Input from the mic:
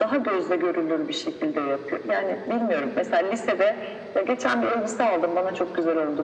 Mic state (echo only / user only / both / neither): echo only